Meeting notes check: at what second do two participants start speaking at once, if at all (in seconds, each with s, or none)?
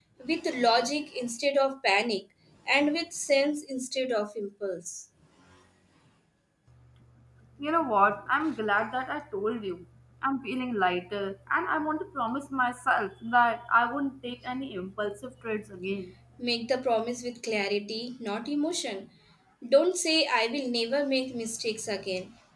none